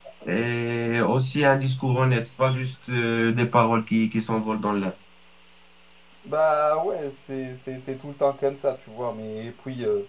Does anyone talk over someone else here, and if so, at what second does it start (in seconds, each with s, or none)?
none